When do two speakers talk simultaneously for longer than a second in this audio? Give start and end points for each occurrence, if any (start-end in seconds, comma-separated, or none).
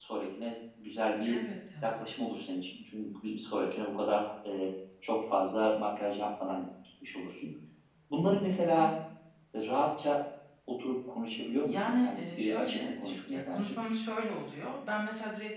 11.6-13.7